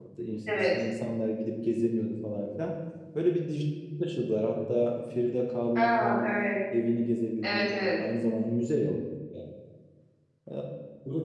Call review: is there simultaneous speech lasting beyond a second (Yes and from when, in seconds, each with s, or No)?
No